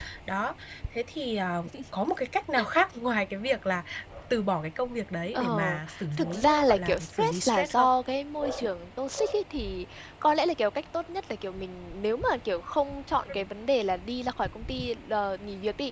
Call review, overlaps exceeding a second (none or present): present